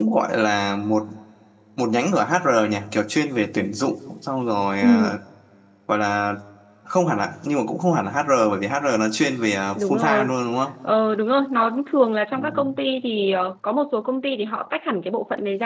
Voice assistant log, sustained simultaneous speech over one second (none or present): none